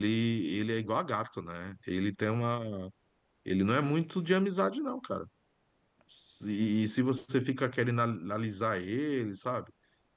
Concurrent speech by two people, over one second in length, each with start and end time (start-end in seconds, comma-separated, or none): none